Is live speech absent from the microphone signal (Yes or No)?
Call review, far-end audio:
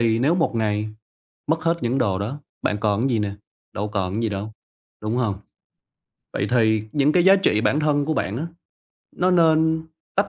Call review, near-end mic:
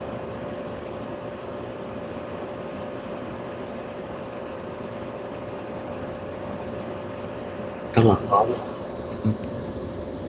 No